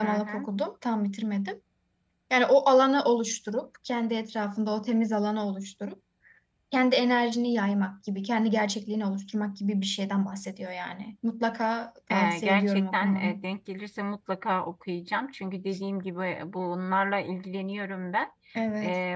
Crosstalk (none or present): present